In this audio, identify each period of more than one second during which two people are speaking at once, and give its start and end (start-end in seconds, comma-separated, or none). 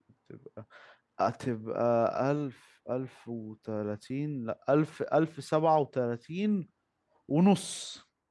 none